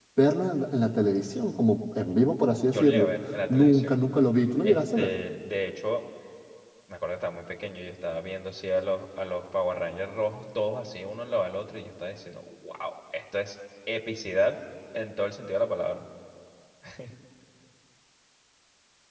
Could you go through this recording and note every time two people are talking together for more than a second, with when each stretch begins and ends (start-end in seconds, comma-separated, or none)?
none